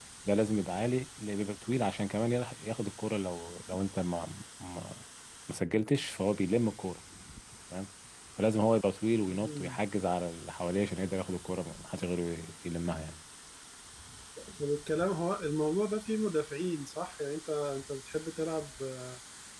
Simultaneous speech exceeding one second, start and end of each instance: none

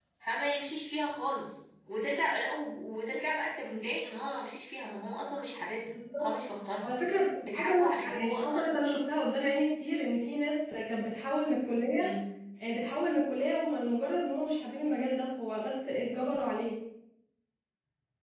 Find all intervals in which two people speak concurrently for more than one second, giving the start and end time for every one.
7.4-8.8

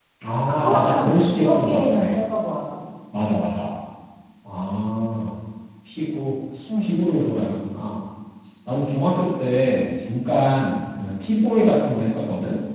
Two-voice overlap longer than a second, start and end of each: 0.6-2.0

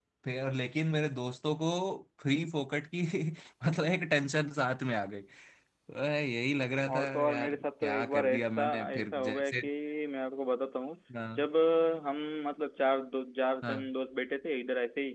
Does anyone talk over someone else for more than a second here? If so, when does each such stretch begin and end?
6.9-9.7

